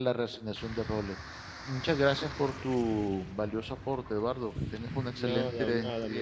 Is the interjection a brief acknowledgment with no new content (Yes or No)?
No